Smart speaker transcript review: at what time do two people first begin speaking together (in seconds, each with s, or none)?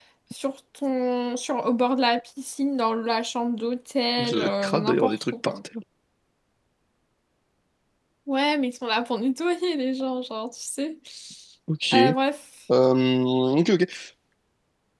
4.2 s